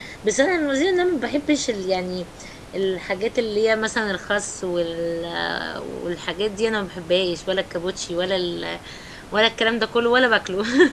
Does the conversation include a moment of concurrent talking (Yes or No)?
No